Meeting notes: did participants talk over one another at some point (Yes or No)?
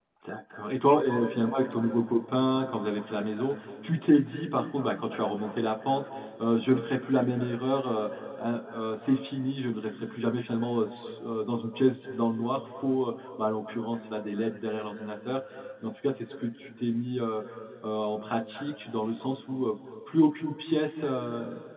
No